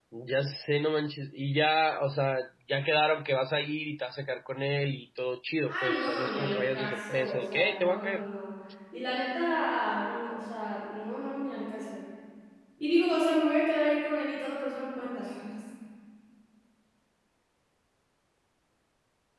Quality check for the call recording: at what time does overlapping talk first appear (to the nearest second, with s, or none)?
6 s